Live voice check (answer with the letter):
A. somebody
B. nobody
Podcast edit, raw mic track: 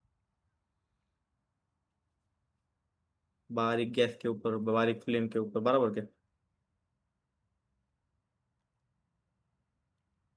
A